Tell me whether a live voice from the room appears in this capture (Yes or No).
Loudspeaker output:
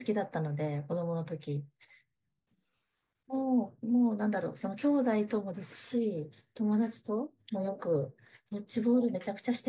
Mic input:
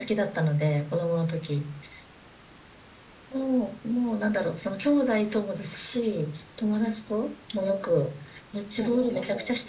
Yes